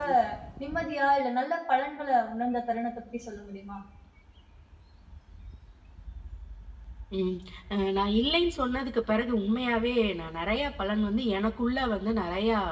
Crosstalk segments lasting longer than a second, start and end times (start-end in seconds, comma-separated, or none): none